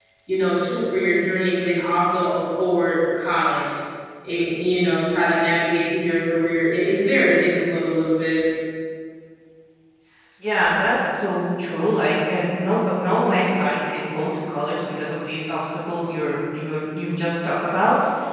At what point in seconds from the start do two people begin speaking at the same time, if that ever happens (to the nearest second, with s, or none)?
none